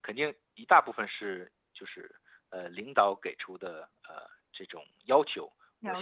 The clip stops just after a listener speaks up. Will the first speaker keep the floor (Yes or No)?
Yes